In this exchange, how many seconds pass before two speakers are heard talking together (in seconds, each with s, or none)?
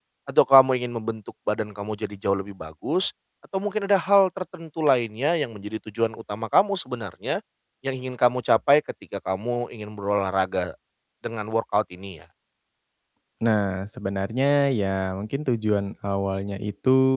none